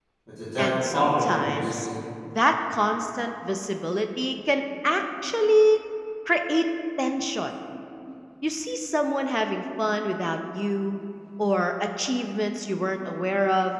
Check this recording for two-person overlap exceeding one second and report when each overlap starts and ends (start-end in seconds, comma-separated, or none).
0.6-1.9